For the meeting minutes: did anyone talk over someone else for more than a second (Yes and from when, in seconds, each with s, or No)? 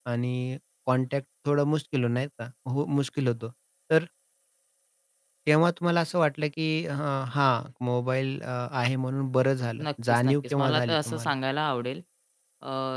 Yes, from 10.1 s